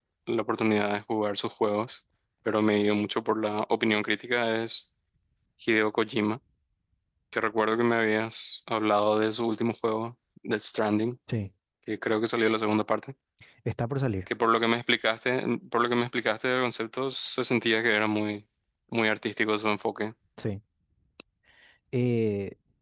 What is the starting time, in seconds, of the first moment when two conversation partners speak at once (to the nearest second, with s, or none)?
none